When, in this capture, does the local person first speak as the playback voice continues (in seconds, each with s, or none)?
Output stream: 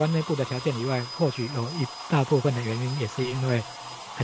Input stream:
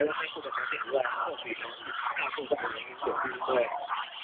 none